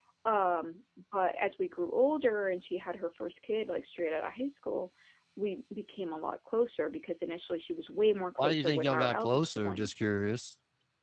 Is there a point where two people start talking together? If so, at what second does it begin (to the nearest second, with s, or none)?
8 s